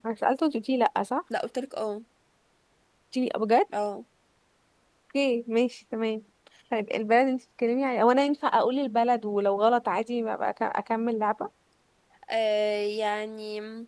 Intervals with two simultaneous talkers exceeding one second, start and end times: none

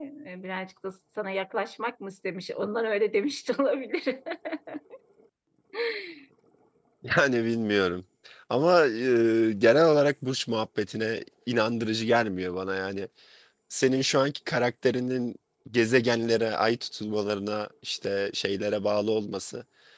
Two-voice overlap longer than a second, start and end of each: none

